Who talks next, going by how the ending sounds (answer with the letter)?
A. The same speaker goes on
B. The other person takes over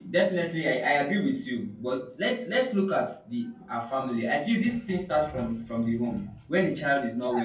B